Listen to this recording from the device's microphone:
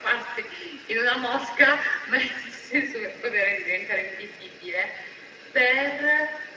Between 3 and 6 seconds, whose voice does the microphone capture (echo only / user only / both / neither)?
echo only